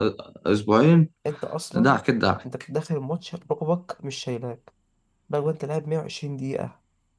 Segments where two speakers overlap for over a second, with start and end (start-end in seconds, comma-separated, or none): none